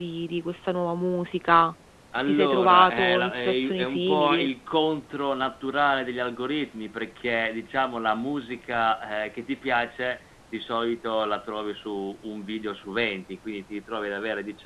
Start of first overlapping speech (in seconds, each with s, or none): 2.1 s